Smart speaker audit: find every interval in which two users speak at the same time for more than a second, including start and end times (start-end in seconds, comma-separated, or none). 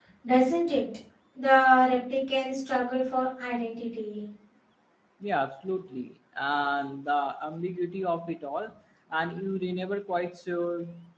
none